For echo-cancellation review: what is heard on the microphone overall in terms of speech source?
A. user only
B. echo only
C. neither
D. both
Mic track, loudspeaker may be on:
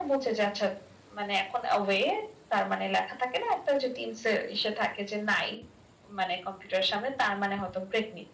B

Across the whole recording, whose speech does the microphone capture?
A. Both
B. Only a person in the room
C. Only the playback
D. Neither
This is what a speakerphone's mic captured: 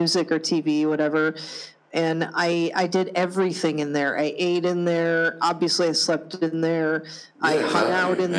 A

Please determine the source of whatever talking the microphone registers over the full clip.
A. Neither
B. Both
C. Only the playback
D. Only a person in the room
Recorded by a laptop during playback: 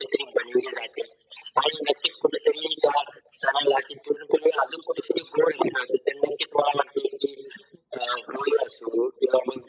C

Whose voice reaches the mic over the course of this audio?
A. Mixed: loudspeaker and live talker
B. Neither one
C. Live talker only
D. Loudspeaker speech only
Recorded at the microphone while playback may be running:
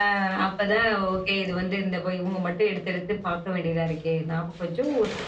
D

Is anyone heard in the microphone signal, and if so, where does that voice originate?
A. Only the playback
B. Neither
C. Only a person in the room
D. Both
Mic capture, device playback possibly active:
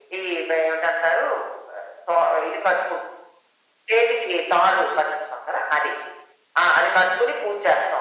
A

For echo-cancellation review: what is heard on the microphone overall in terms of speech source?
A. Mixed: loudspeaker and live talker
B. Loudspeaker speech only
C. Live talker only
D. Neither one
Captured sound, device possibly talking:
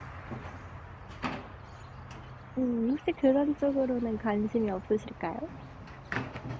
C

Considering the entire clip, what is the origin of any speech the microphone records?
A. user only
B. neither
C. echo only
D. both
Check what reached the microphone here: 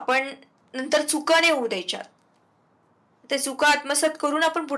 C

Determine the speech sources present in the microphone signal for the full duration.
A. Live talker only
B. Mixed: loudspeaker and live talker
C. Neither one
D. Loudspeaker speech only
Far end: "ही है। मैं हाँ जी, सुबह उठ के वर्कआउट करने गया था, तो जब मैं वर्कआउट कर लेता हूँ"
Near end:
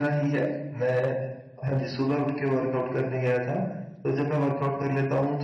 D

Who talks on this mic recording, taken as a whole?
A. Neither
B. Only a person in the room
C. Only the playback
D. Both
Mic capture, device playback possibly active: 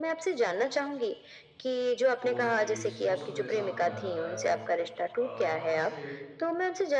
D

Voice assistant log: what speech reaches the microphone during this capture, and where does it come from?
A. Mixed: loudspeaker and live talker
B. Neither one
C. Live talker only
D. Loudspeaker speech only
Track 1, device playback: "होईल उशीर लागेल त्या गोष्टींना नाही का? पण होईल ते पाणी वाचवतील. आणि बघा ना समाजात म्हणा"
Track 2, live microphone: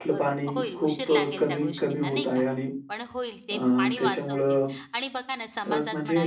A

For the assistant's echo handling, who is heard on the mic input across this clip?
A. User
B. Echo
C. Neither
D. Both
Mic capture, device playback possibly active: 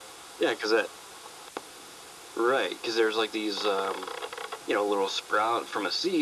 B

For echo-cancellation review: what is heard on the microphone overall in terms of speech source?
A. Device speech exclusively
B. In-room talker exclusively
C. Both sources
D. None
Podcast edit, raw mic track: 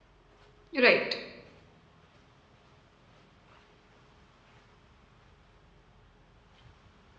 B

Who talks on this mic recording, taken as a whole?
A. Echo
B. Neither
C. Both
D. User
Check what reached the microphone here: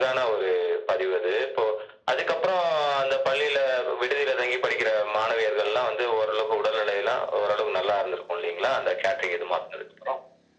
A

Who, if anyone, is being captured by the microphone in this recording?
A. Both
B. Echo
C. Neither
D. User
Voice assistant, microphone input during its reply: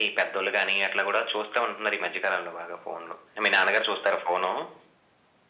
B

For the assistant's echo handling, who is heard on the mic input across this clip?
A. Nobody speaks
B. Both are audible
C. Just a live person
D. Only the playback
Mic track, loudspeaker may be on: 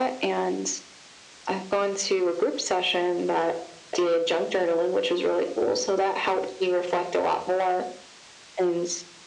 D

